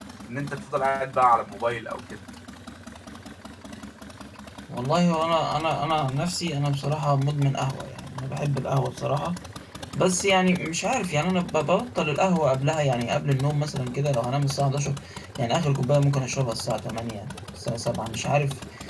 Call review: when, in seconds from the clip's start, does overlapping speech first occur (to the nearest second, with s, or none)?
none